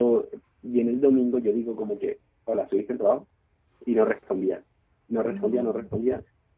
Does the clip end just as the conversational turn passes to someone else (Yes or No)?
No